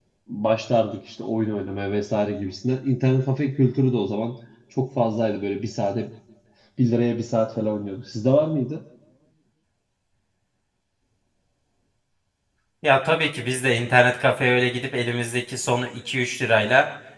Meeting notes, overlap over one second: none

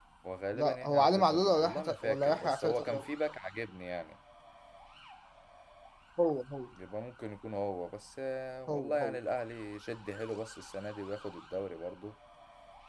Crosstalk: present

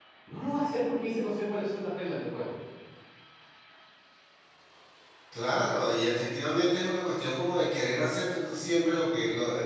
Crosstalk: none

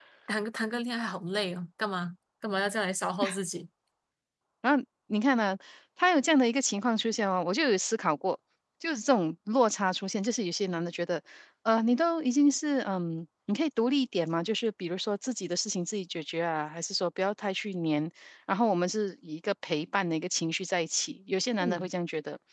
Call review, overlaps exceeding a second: none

